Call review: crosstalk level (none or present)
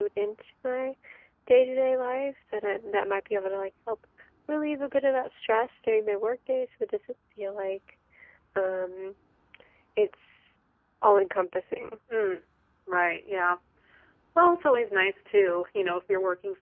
none